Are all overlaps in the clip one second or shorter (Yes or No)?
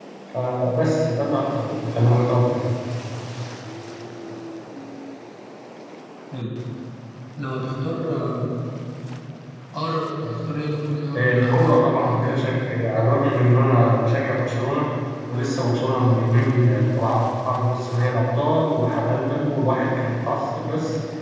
No